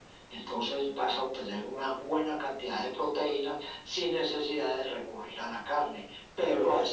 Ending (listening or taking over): listening